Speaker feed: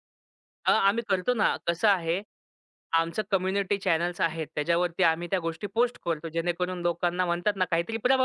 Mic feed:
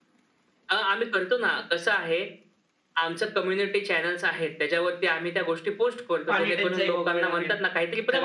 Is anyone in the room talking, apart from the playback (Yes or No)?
Yes